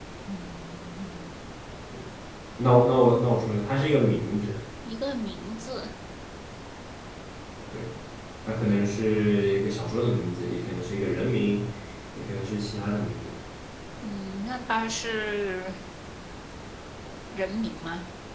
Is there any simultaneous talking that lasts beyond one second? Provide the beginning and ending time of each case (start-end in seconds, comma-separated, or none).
none